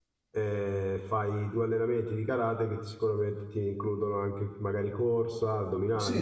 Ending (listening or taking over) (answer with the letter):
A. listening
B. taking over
B